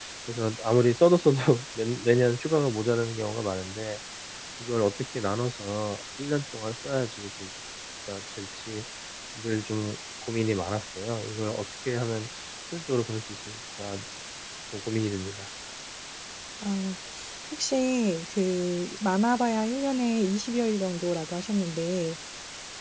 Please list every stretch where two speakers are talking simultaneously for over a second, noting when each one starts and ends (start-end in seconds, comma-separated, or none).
none